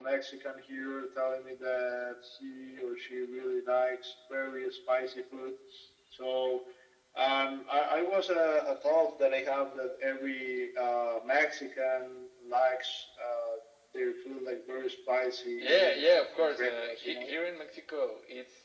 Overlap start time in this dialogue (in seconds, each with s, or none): 15.6 s